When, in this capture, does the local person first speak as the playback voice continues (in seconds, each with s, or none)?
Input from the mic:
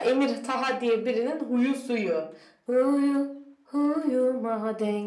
none